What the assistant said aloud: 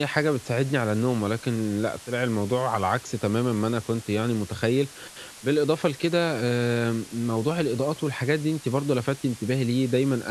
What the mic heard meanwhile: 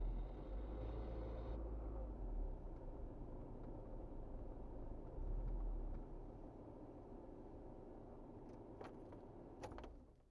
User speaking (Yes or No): No